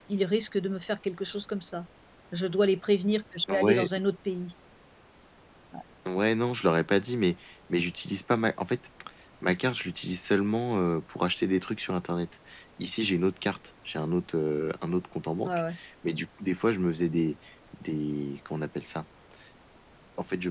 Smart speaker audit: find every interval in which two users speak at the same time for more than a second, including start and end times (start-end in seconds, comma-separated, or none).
none